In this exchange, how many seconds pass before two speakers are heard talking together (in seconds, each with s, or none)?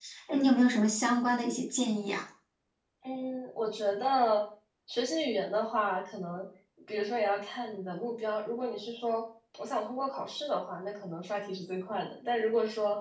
none